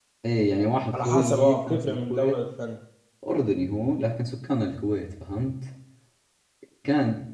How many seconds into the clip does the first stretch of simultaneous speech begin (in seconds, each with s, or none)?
0.9 s